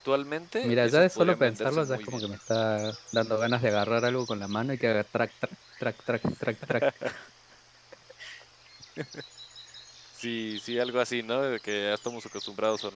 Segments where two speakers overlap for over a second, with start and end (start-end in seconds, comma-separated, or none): 0.6-2.2